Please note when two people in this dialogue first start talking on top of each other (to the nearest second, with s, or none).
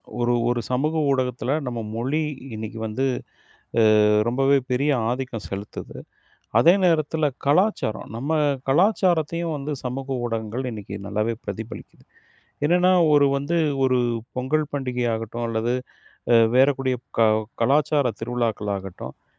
none